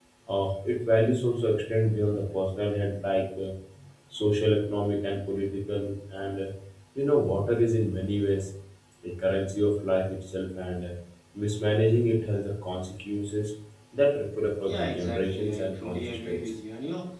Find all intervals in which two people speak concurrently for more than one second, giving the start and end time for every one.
14.6-16.4

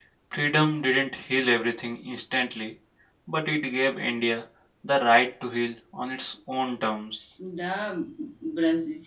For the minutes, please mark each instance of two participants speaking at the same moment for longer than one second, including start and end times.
none

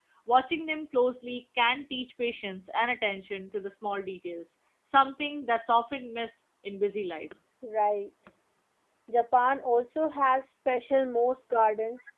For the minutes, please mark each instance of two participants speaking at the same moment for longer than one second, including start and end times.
none

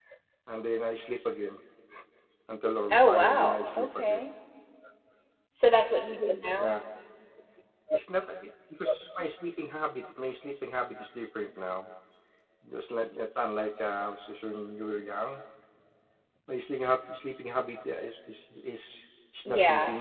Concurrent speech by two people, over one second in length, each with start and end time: 2.9-4.3

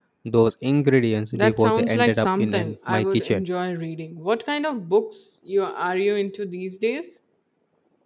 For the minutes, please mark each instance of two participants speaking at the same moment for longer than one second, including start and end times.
1.3-3.4

